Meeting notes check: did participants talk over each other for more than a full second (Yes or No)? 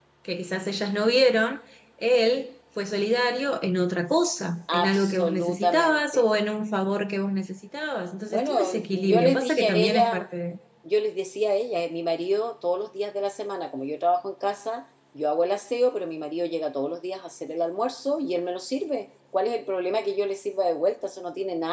Yes